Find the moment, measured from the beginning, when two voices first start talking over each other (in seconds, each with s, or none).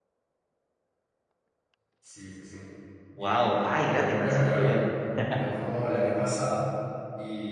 3.2 s